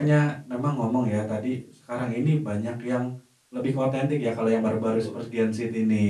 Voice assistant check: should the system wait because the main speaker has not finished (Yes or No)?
Yes